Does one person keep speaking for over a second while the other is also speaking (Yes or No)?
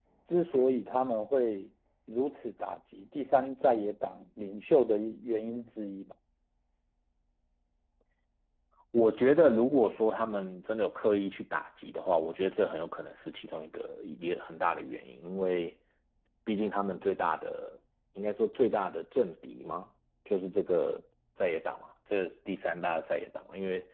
No